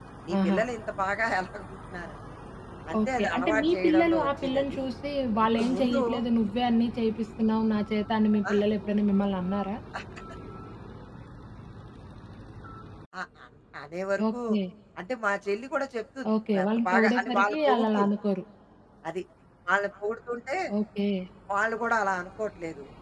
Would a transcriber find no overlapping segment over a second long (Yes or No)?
No